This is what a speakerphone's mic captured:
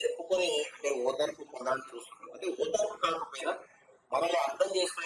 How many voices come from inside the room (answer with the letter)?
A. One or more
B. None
B